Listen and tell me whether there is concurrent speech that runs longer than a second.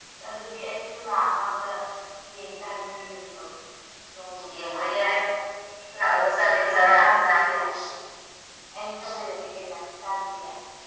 Yes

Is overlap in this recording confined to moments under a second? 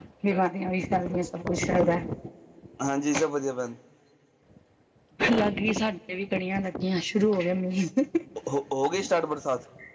Yes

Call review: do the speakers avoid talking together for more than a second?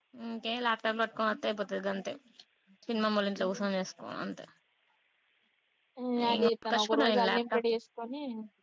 No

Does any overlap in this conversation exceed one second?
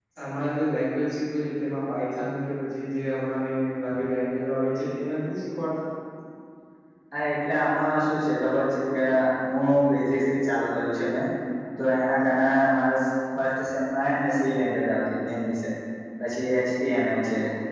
No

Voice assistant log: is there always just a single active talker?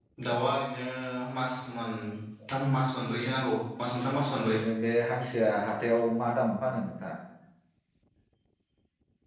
Yes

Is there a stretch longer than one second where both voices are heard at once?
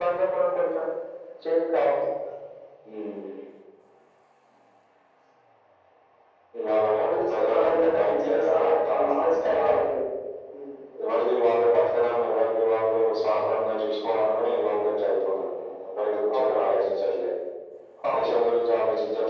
Yes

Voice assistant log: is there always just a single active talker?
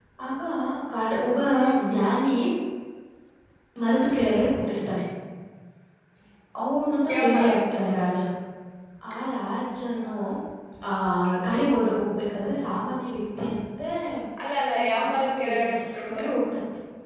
No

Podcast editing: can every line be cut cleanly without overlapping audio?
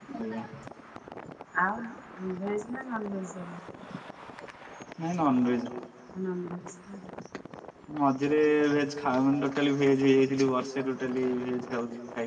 Yes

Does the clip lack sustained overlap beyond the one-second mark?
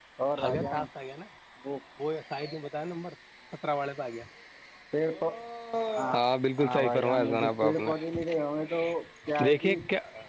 No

